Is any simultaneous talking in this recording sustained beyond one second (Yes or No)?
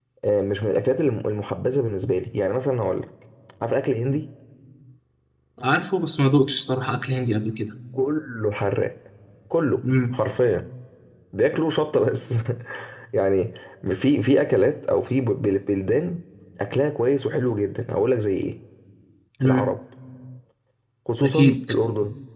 No